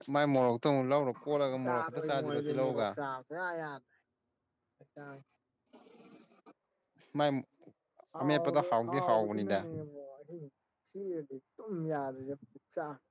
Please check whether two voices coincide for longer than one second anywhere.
Yes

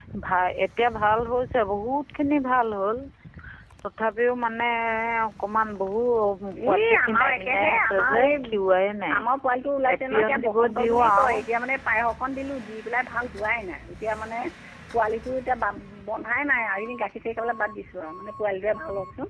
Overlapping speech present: Yes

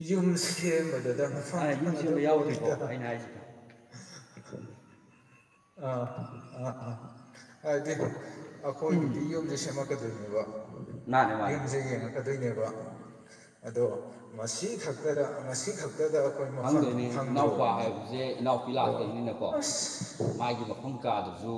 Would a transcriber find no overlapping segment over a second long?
No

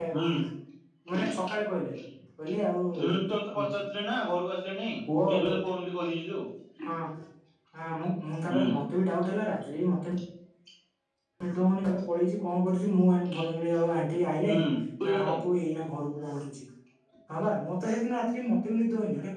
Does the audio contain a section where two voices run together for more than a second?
No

